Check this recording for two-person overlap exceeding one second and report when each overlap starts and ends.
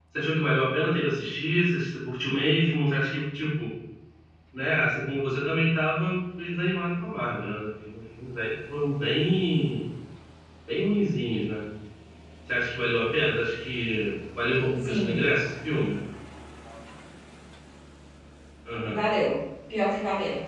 none

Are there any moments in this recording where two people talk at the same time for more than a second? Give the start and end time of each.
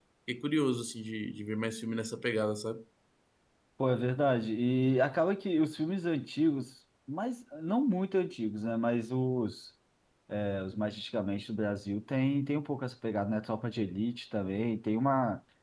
none

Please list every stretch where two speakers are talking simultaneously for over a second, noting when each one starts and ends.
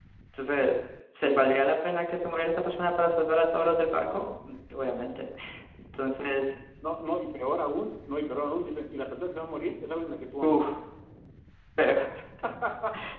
none

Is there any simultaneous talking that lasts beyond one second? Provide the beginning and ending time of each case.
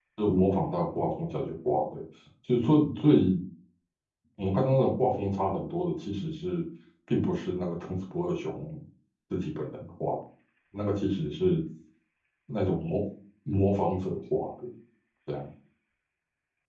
none

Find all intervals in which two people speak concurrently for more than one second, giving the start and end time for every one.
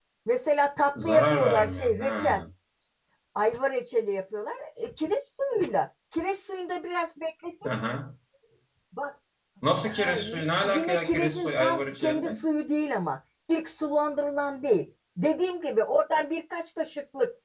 1.0-2.4, 9.9-12.3

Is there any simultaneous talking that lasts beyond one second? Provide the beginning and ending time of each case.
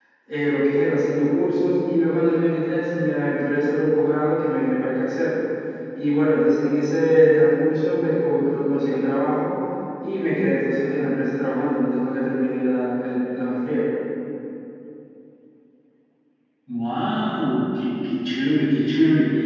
none

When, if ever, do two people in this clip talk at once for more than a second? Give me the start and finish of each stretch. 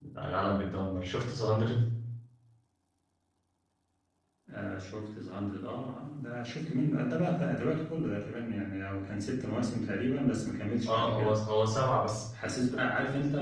none

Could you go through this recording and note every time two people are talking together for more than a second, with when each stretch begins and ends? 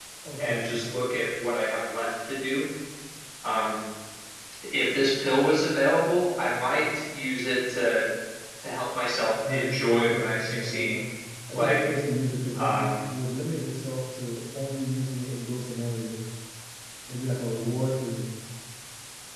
9.5-10.9

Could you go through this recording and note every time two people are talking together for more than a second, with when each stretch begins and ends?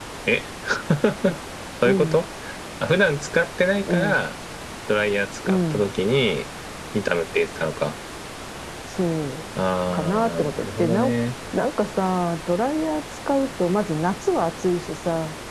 9.9-11.1

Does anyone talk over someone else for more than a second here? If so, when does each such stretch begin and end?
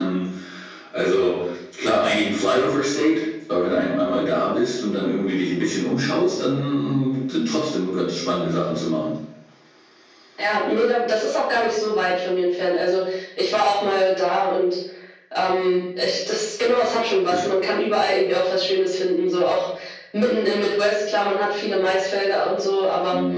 none

